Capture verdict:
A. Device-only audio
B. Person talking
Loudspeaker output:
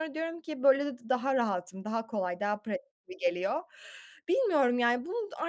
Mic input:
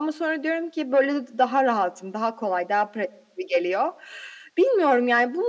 A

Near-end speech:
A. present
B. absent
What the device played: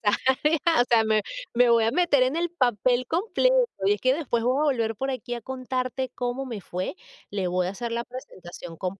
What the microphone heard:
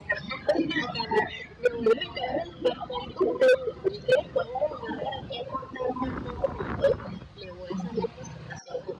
B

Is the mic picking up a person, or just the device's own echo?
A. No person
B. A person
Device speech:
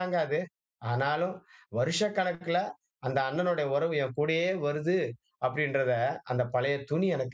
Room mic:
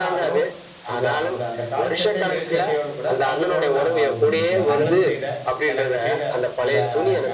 B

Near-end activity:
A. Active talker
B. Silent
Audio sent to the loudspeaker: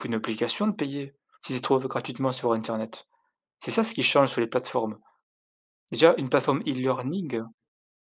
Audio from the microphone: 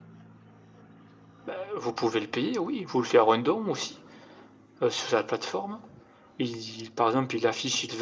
A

